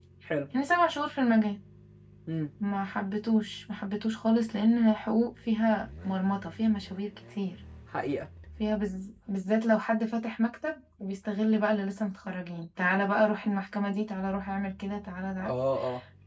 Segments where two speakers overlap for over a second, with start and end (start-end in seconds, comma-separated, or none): none